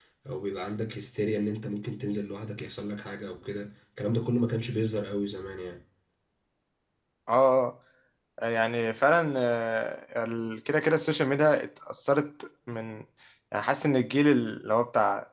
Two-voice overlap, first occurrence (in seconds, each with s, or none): none